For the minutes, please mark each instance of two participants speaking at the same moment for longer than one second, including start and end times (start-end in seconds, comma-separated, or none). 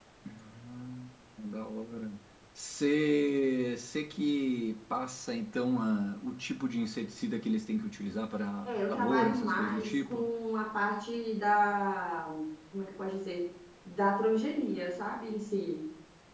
8.7-10.2